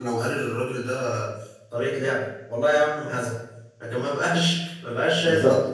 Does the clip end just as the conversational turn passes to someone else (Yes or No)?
No